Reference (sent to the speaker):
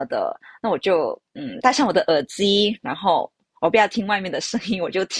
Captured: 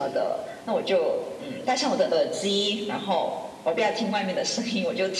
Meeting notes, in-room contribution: none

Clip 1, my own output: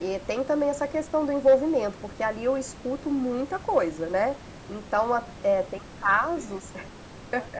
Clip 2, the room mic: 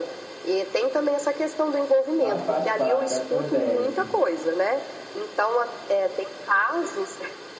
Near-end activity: present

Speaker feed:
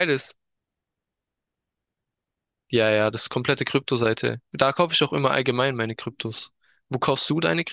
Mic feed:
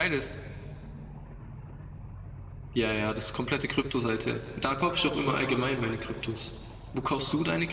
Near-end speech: none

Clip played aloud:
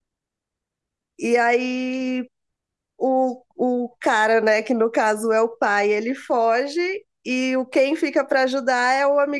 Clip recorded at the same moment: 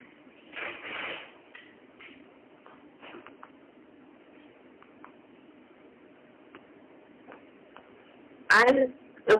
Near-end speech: present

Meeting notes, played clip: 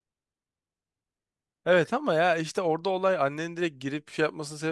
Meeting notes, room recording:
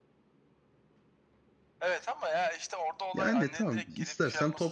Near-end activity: present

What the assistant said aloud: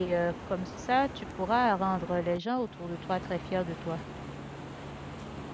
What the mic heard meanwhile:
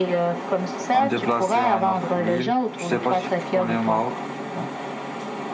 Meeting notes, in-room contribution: present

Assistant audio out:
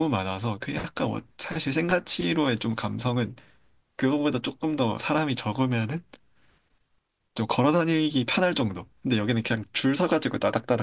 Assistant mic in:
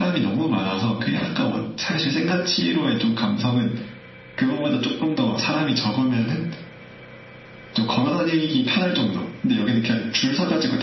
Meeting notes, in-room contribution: none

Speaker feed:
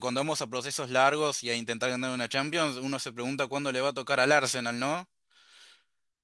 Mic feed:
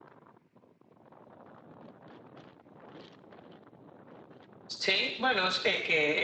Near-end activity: present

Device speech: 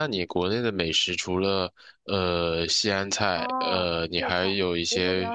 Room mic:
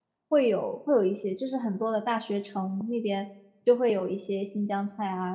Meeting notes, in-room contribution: present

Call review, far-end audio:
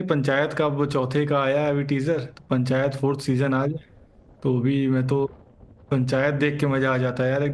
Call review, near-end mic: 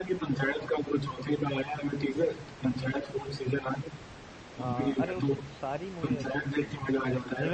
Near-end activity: present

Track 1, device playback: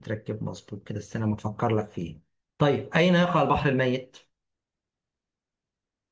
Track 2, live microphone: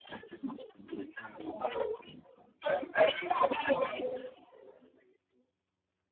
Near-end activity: none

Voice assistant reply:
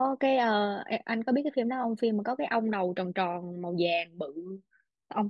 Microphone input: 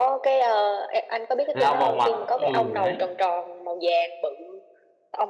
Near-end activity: present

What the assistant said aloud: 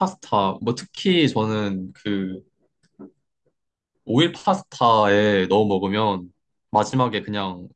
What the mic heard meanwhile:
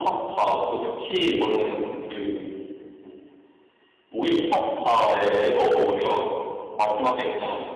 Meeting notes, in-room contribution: none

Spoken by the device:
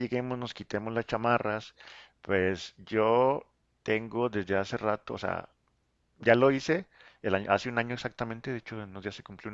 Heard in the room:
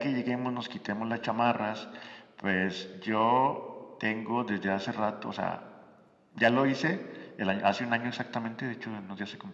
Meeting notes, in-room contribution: none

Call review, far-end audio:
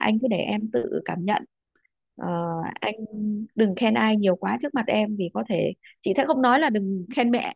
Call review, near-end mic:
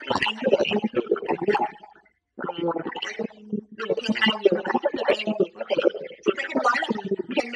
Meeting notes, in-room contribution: none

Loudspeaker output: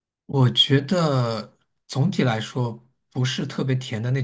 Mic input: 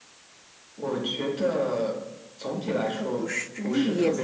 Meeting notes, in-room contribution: present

